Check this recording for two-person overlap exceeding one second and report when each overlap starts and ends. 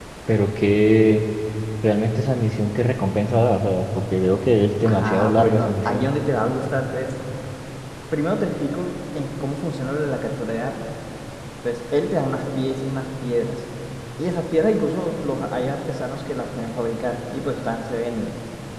4.8-6.1

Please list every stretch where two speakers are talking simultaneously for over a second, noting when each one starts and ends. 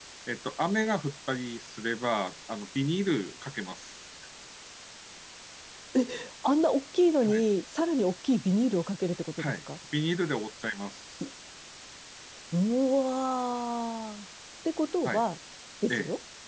none

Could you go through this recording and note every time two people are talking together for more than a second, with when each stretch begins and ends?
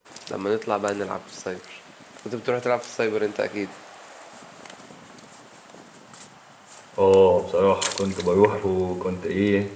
none

